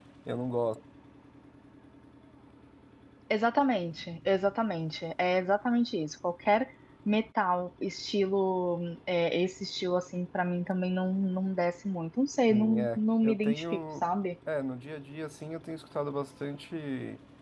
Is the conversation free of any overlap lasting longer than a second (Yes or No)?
No